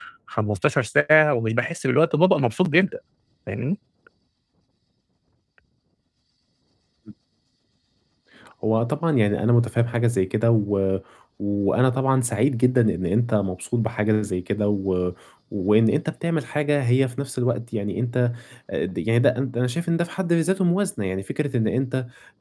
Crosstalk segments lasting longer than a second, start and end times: none

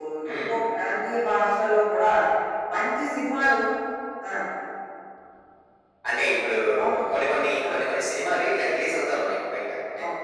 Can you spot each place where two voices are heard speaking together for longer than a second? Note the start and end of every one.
none

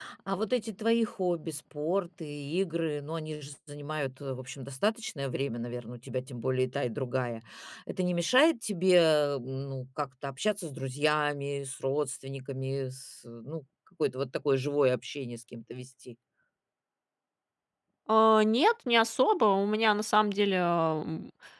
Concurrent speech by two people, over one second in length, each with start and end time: none

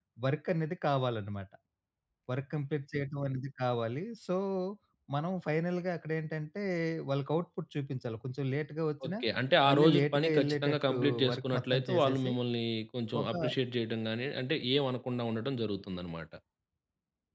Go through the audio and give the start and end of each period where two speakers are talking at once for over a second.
9.7-12.3

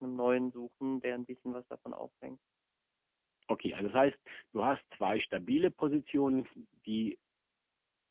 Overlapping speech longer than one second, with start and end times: none

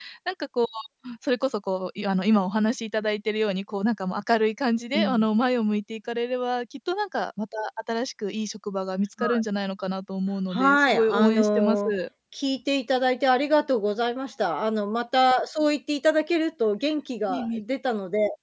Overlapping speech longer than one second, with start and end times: 10.5-11.8

